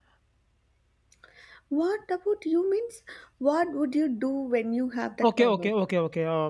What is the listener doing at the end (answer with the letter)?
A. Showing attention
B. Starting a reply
B